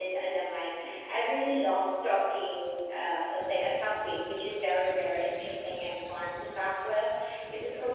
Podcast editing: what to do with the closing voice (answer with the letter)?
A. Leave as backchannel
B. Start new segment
A